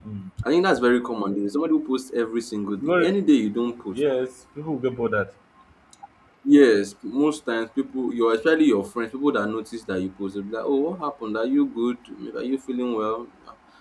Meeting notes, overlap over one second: none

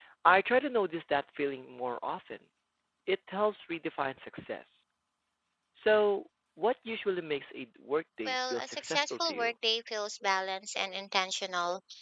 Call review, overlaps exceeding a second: present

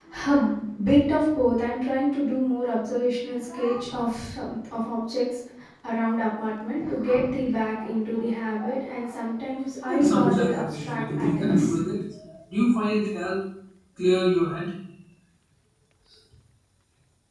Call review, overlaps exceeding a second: present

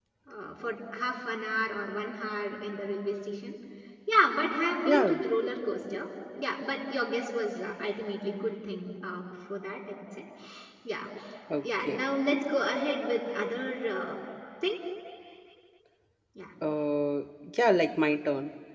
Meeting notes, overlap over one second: none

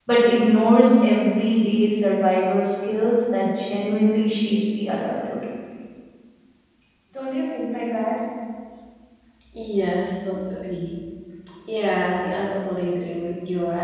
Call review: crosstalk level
none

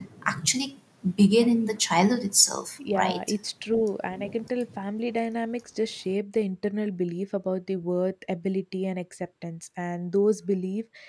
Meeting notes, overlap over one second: none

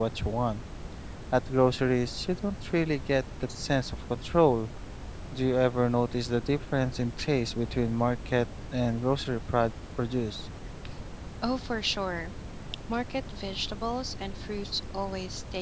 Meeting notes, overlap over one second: none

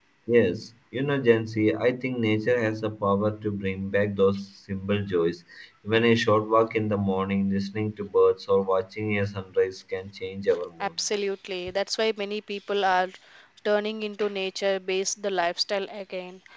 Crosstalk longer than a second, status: none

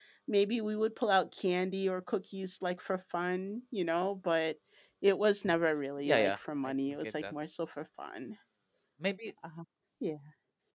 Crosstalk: present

